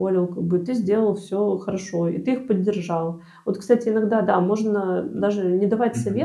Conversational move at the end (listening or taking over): listening